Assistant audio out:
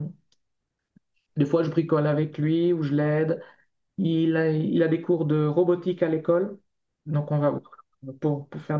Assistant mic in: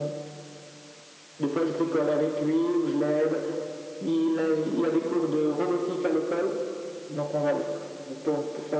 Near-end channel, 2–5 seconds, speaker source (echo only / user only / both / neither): echo only